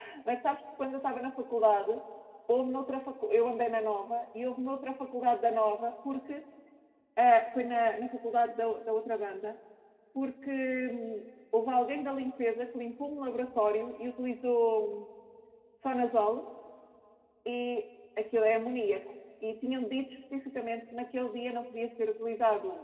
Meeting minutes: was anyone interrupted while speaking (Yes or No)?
No